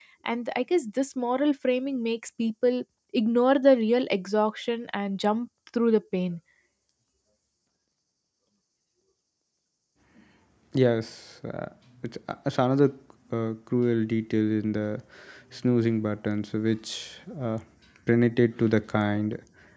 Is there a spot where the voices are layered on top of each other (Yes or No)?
No